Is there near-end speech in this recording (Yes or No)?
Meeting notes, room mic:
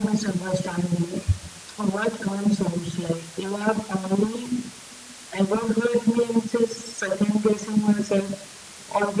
No